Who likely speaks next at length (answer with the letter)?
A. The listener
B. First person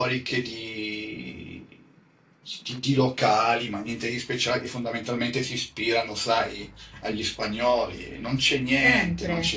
A